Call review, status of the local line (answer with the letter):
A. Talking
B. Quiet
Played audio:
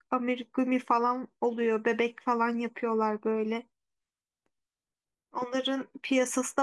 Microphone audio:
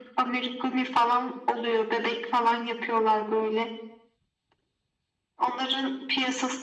B